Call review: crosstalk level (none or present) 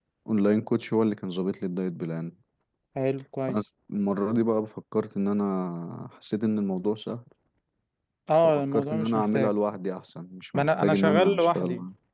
present